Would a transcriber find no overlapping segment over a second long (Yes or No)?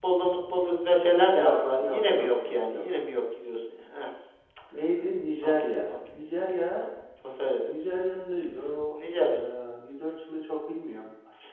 No